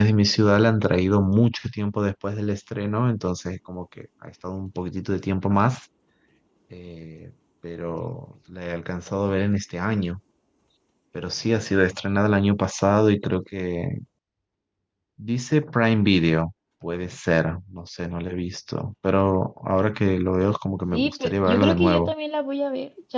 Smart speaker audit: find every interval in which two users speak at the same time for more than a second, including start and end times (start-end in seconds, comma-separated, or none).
20.9-22.1